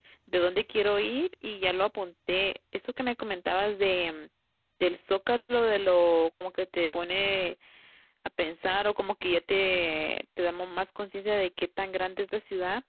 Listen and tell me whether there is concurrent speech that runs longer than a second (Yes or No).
No